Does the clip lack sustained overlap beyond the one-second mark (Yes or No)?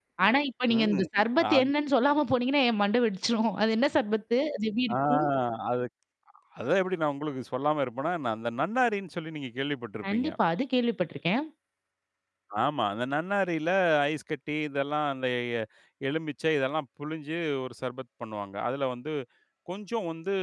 Yes